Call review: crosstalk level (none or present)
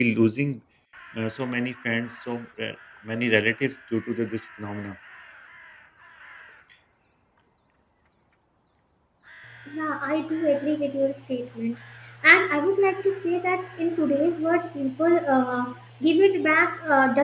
none